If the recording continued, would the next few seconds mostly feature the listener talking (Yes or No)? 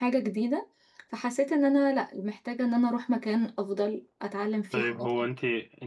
Yes